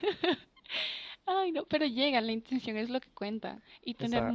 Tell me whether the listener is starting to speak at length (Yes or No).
No